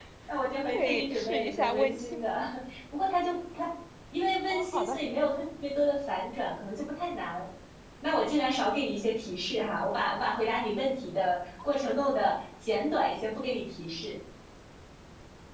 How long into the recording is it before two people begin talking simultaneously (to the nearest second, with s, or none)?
1 s